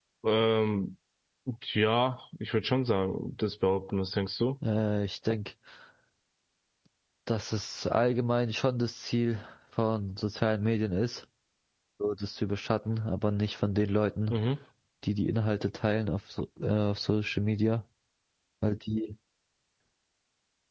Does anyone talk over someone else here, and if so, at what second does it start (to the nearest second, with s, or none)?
none